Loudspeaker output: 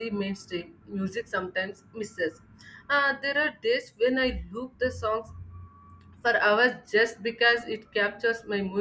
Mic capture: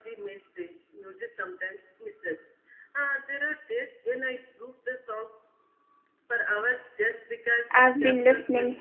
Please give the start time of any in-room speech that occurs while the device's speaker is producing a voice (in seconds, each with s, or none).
7.7 s